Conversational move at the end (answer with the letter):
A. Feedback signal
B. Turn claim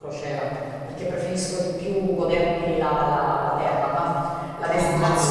B